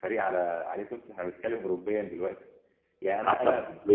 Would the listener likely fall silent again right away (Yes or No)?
Yes